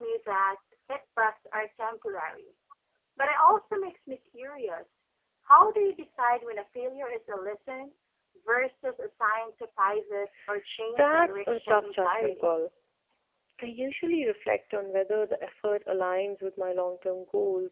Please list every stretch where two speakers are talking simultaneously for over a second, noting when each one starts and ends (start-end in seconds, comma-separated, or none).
10.9-12.4